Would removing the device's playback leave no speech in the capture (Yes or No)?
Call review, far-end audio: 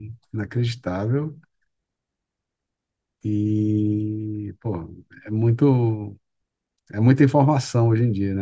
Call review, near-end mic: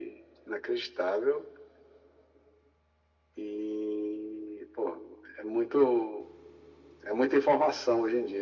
Yes